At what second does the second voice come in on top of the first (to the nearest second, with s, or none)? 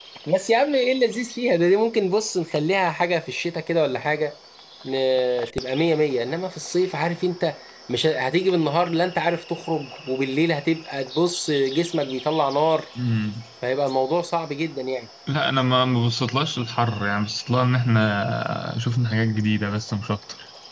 none